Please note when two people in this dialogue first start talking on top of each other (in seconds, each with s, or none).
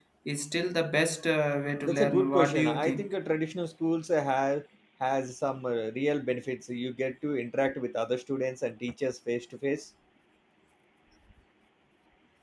1.8 s